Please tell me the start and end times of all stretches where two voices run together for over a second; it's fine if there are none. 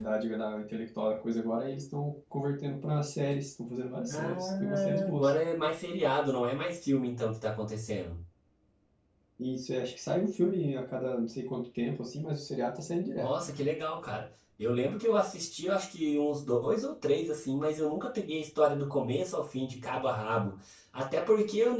4.1-5.3

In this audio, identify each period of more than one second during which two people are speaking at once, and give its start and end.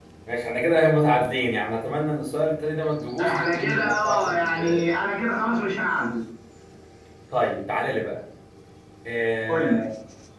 3.2-4.9

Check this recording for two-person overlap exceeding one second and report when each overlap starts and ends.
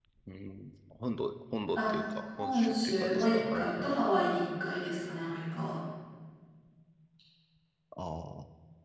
2.4-4.0

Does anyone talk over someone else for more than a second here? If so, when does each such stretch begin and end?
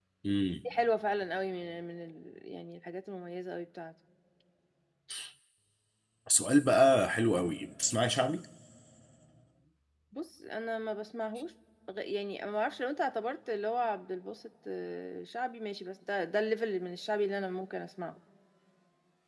none

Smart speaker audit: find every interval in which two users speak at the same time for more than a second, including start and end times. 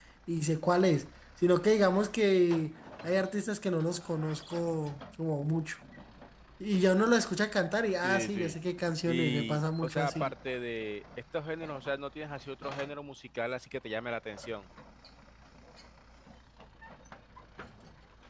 9.1-10.3

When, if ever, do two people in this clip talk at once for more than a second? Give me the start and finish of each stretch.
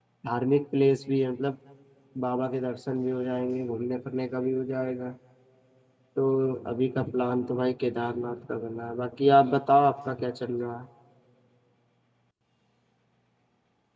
none

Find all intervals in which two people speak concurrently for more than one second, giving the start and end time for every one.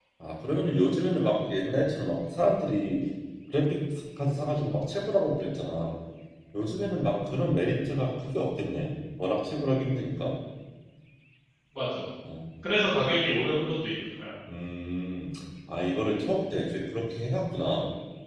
none

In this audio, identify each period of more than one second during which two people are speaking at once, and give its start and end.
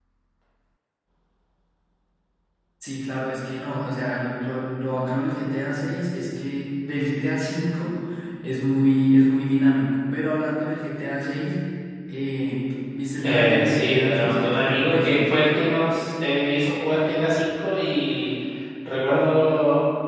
13.2-15.3

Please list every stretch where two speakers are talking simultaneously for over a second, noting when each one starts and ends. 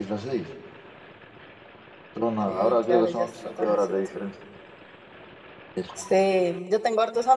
2.5-4.0

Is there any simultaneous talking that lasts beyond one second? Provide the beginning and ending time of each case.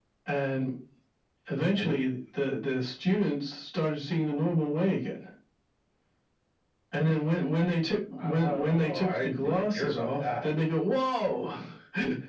8.2-10.5

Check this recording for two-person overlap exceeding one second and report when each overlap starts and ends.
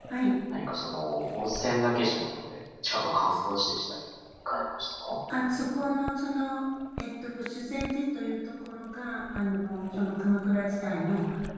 none

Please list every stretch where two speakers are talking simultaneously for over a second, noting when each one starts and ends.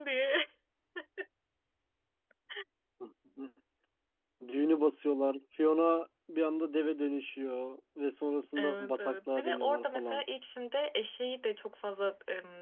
8.6-10.2

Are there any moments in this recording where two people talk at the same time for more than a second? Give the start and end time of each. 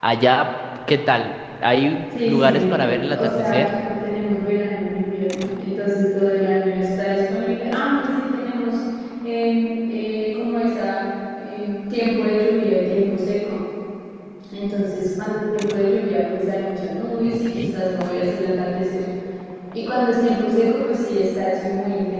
2.2-3.7

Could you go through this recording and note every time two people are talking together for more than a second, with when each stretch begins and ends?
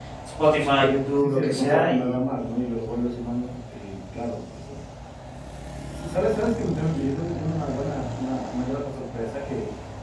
0.8-2.1

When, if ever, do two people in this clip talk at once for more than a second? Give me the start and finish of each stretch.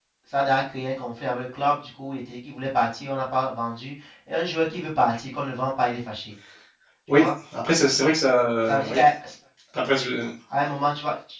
none

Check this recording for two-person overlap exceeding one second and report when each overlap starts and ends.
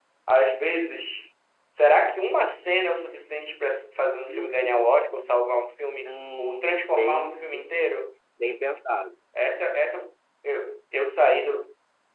4.3-5.6, 6.0-7.7

